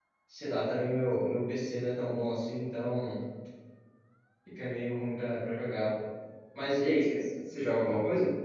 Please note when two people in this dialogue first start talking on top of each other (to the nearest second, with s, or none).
none